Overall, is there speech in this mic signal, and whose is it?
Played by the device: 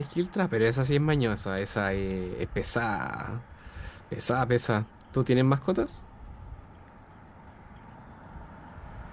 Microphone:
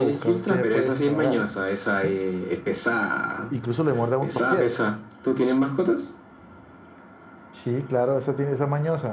both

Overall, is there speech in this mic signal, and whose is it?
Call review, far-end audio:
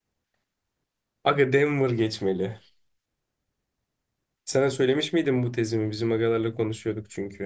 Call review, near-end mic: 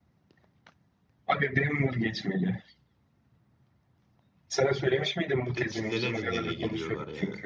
both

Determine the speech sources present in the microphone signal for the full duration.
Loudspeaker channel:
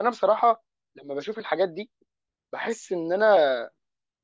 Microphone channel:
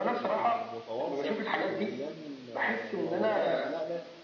both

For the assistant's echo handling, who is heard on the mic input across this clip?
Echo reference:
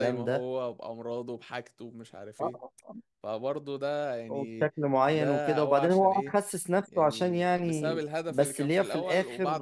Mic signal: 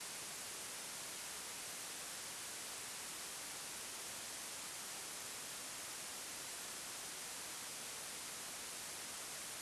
neither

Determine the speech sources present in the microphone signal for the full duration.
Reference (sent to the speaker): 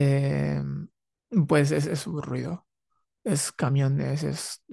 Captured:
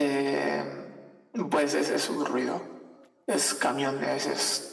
echo only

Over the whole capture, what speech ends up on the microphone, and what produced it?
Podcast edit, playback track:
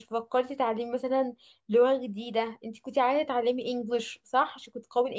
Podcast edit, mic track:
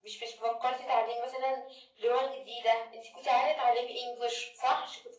echo only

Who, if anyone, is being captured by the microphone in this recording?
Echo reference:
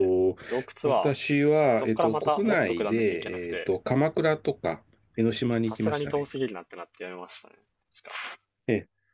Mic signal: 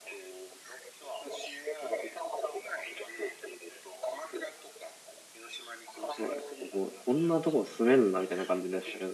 both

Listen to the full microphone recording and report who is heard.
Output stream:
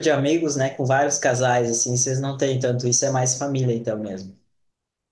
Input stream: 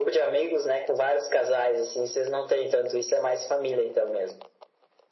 echo only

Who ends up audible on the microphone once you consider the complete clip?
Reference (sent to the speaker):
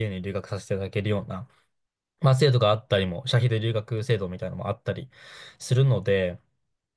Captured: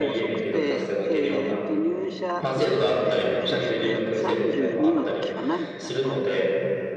both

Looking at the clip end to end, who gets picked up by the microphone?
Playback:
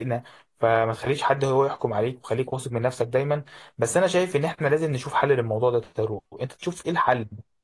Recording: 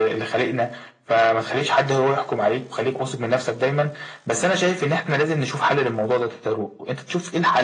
echo only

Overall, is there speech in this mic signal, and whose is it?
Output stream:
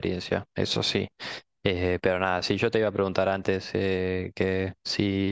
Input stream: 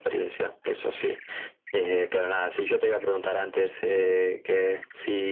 echo only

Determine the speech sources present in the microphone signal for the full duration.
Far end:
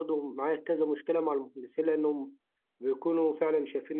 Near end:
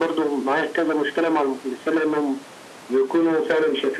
echo only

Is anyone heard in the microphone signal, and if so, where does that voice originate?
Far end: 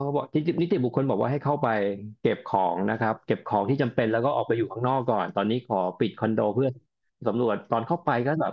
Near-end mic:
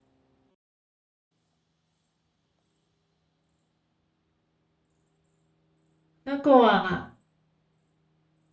user only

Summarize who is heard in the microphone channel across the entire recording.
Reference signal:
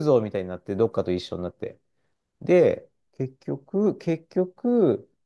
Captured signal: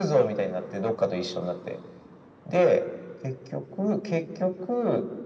echo only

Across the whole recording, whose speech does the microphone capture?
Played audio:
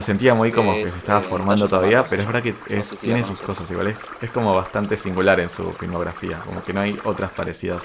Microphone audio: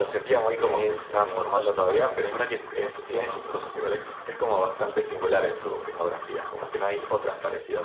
echo only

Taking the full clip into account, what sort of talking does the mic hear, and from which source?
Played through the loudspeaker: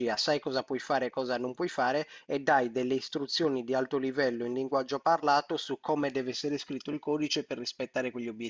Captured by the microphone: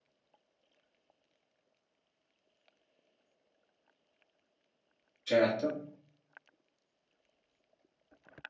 user only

